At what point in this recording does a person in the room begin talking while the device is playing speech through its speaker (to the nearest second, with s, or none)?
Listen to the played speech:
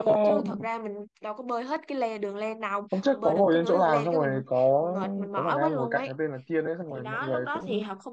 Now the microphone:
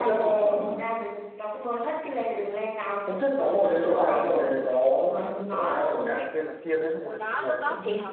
none